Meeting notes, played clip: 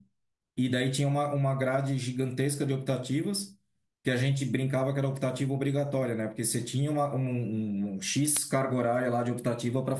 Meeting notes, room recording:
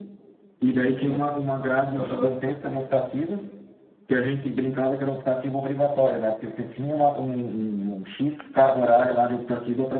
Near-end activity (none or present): present